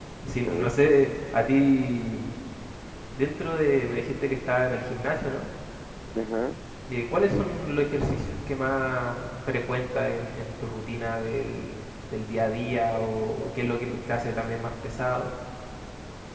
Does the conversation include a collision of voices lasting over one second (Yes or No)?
Yes